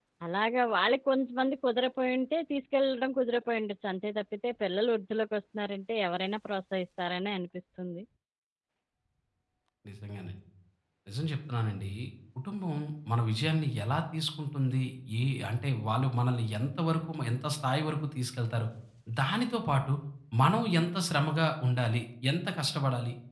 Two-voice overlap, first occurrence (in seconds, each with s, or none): none